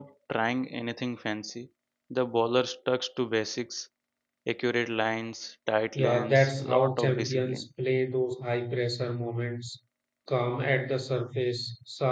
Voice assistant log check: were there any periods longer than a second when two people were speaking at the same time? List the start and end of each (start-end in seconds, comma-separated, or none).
6.0-7.6